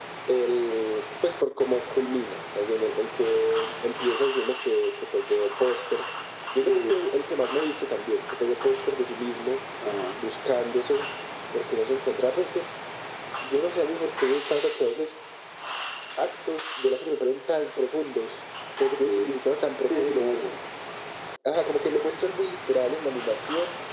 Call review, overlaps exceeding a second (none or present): none